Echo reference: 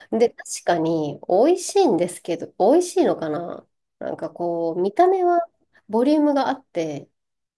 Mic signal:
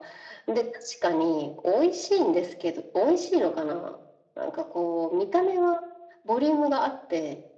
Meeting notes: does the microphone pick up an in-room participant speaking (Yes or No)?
No